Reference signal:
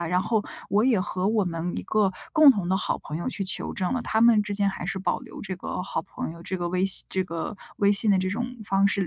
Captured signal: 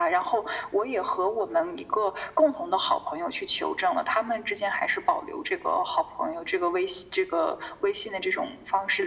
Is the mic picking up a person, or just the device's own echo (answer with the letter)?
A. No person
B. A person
A